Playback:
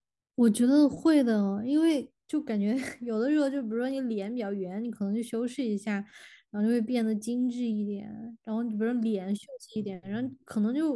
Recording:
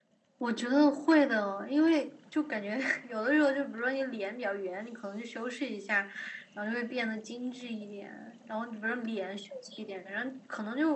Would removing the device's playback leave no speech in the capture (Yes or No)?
Yes